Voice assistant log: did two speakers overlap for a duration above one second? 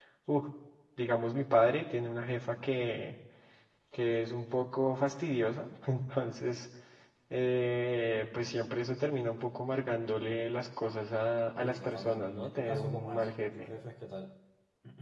Yes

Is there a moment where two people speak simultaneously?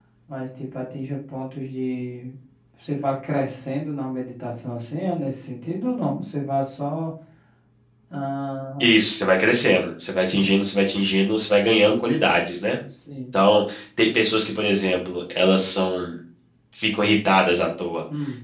No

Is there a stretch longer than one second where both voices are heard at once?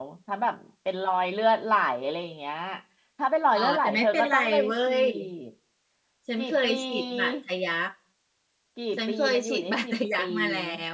Yes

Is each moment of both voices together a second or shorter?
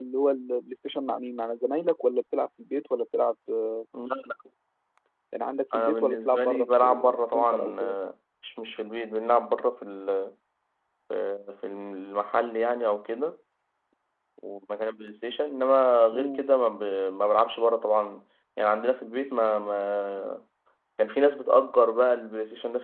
No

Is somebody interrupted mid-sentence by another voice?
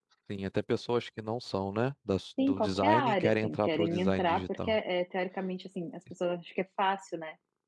Yes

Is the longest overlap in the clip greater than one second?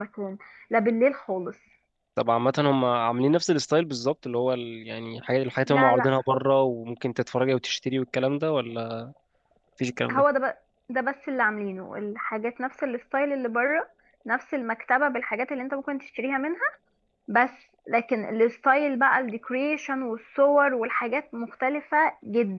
No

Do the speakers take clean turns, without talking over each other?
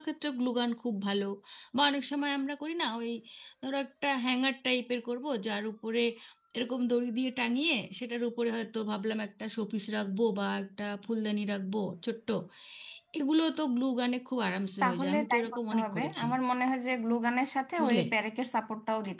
No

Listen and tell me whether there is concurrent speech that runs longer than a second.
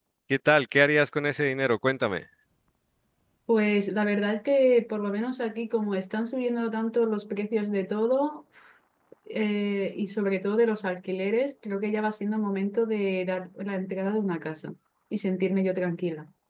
No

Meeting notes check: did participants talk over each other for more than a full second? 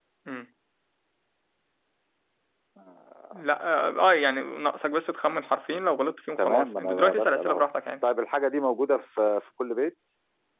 Yes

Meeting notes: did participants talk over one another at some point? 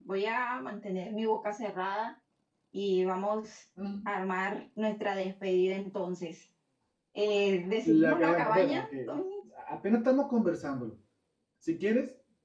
Yes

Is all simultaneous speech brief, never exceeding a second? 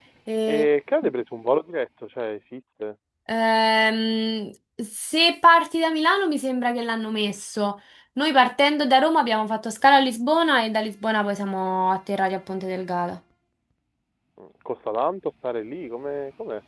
Yes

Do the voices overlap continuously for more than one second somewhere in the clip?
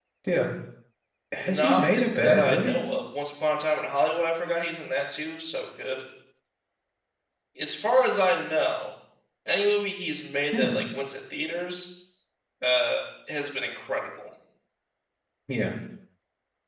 Yes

